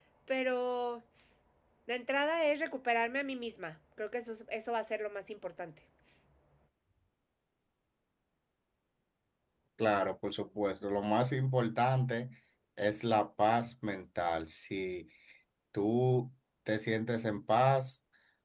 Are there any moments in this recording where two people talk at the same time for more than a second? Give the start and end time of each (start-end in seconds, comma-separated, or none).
none